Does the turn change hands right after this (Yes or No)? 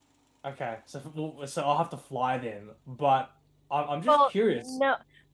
Yes